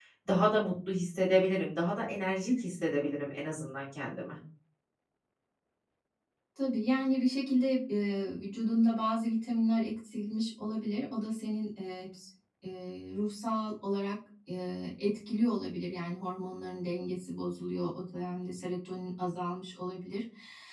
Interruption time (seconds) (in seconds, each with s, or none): none